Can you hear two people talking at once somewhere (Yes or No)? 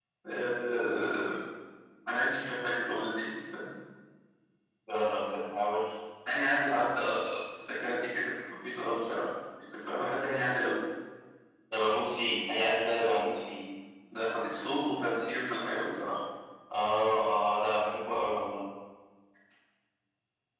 No